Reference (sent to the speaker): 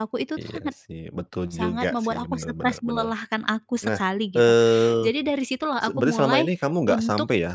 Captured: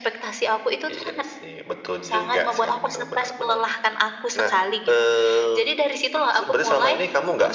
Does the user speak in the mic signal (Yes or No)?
No